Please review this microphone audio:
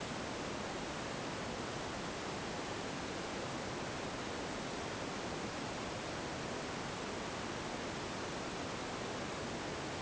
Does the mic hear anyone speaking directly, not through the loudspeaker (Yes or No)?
No